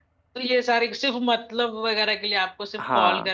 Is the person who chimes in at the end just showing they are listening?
Yes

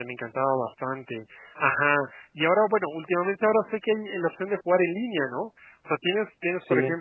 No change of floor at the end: Yes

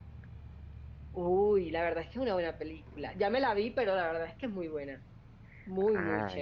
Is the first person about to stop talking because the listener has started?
Yes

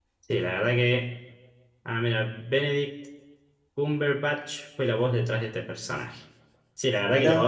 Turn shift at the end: No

